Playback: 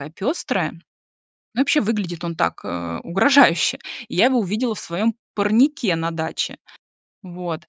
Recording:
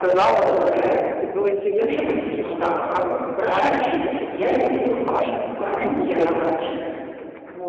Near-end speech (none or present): present